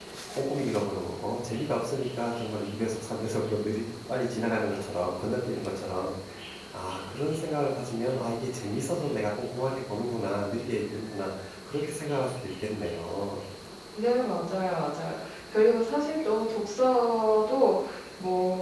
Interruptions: none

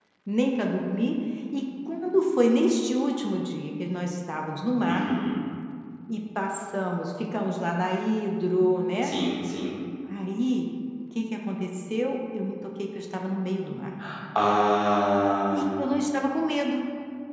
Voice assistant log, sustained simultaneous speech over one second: none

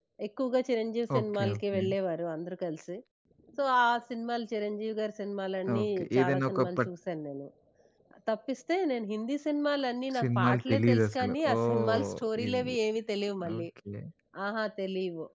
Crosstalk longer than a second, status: present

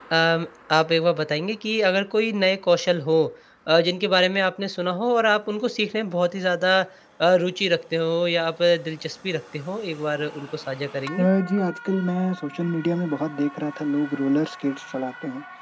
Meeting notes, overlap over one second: none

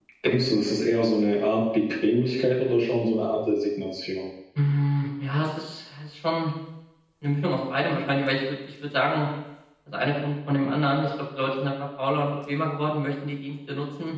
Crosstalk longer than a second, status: none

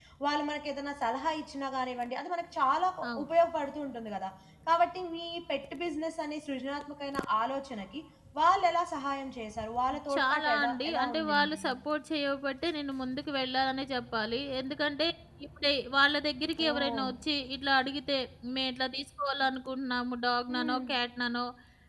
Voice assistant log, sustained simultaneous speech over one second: present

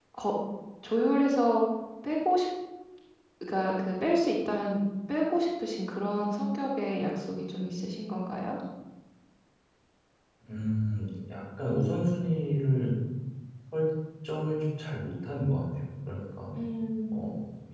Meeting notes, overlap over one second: none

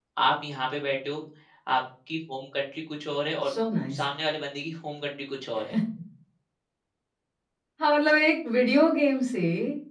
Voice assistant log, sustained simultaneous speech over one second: none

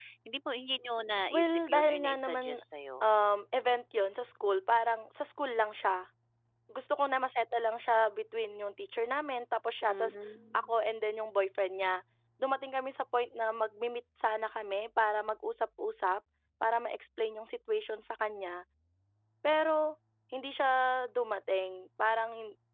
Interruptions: present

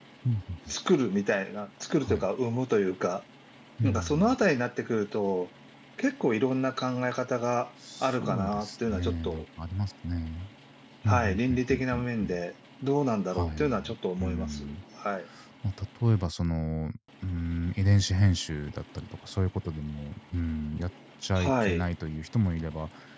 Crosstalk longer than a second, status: present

